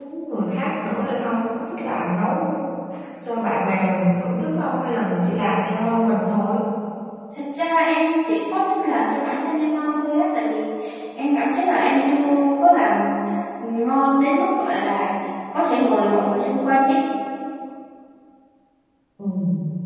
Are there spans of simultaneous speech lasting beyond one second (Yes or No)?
No